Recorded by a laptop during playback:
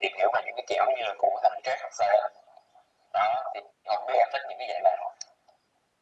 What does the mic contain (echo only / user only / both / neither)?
echo only